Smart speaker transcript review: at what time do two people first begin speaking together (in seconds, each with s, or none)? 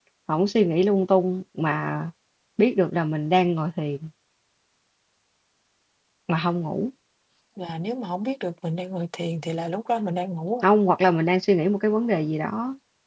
none